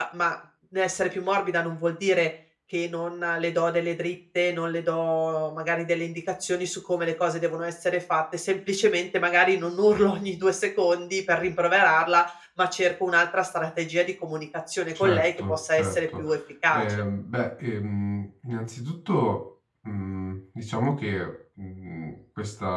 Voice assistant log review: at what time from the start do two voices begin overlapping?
15.0 s

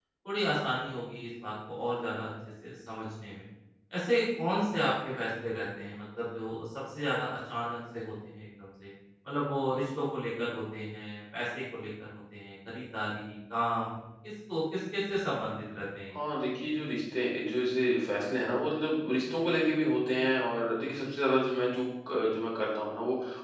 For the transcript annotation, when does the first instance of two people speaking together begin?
none

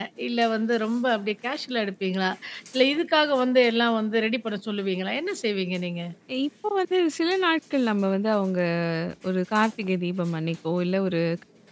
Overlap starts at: none

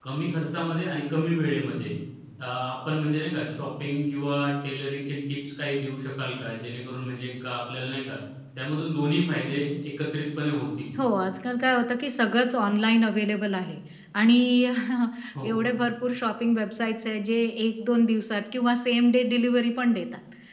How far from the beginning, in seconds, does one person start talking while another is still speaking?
none

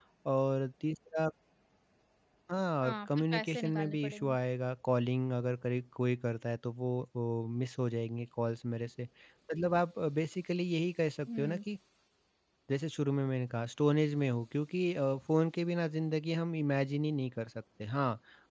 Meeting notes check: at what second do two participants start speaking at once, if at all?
2.8 s

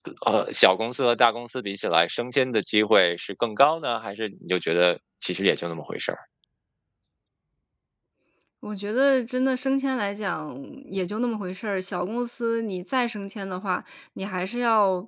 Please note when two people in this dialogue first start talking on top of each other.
none

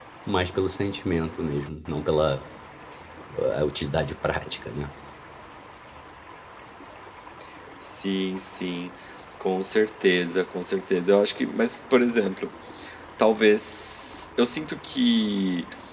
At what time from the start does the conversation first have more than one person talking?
none

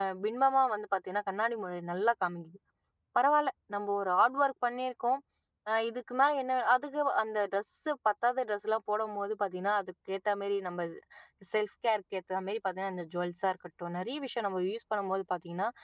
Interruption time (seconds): none

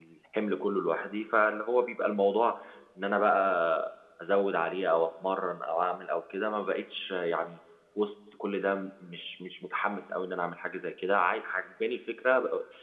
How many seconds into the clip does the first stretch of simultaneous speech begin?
none

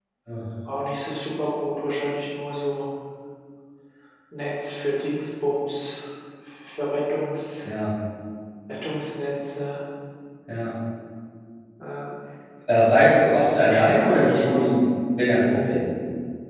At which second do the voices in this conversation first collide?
13.4 s

